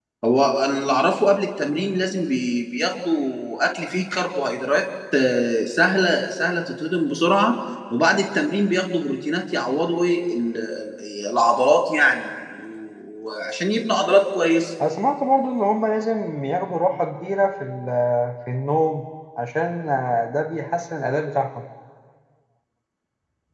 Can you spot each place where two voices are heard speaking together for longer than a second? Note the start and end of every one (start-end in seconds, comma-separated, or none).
none